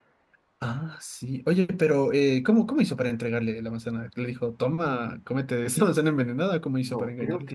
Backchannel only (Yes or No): No